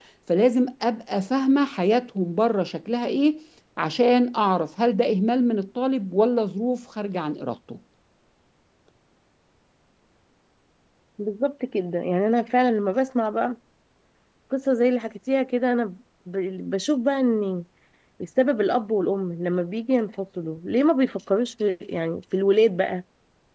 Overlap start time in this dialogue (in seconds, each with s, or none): none